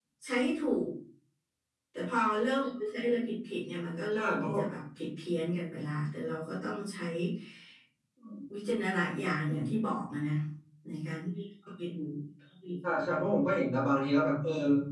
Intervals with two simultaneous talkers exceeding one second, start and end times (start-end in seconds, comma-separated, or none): none